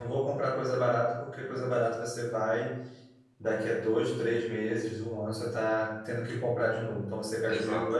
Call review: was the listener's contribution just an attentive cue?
Yes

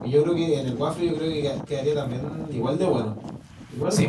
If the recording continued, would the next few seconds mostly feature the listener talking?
Yes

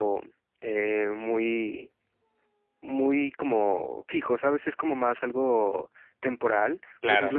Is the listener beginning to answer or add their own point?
No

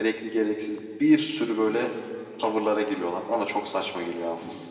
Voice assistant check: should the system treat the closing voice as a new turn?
Yes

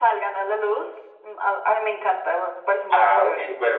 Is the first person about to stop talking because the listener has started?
Yes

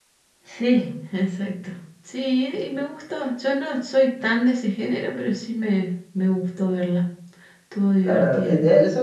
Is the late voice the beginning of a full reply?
Yes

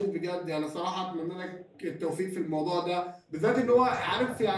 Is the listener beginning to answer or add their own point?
No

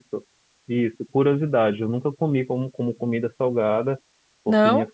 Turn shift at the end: No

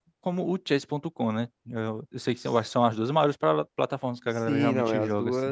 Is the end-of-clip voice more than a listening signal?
Yes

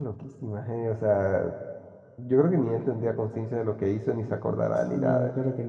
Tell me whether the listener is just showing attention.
No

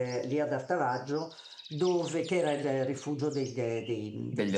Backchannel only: Yes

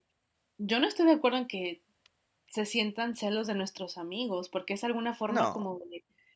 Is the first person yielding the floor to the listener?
No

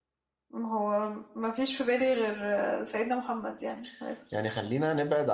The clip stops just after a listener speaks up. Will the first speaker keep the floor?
No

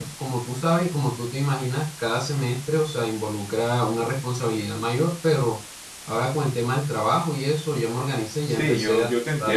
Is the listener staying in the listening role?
No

